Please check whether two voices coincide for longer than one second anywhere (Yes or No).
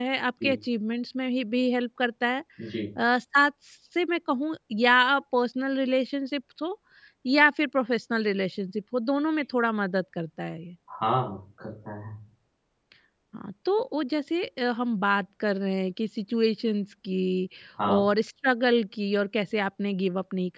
No